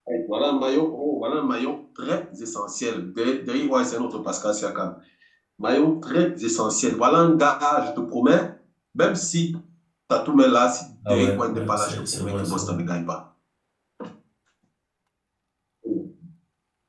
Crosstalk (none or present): present